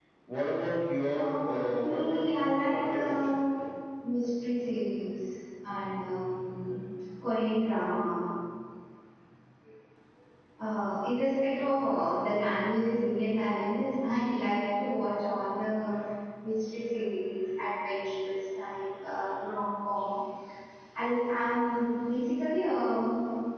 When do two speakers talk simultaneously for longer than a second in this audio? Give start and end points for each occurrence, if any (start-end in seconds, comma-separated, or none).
1.1-3.4